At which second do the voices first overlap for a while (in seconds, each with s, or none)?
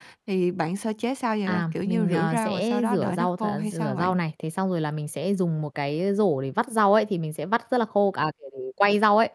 1.5 s